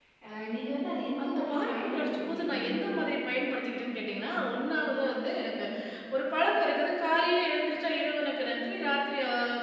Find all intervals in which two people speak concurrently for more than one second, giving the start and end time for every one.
1.2-2.6

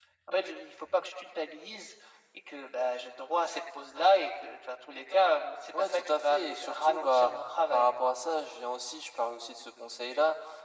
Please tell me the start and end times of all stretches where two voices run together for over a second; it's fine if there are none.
5.7-7.3

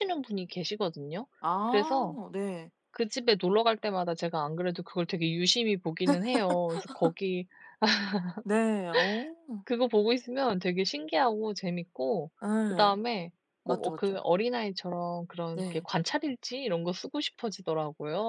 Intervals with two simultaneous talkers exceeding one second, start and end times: none

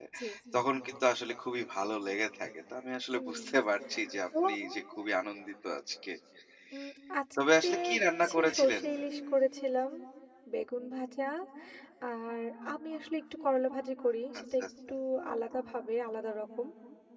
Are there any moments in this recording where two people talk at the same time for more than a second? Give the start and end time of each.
7.6-8.8

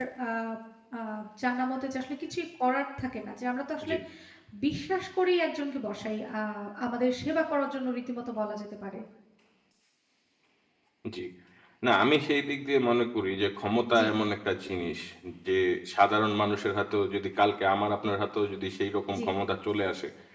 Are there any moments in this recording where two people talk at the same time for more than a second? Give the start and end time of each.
none

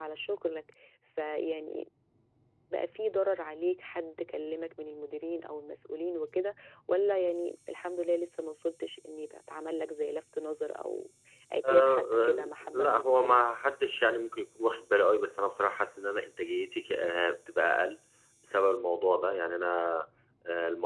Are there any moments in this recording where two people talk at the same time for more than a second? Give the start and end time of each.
11.7-13.5

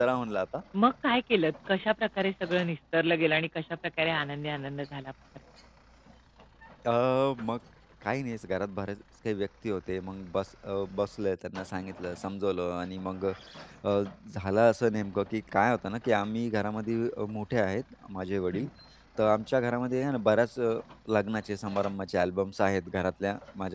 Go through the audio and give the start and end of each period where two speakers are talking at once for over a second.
none

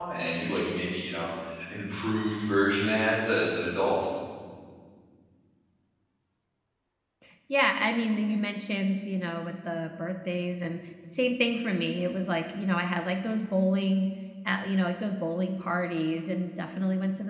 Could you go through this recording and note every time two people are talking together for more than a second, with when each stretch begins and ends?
none

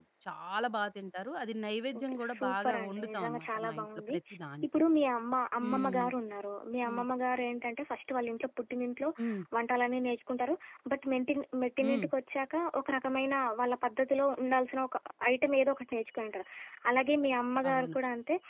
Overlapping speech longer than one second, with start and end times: 2.0-4.2

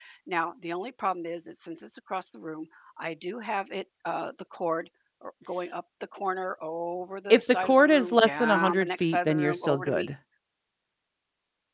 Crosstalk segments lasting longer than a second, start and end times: 7.3-10.1

